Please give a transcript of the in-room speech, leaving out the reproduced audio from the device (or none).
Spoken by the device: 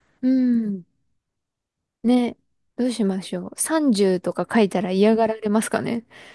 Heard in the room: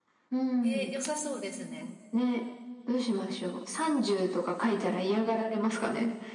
ー良さそうですね。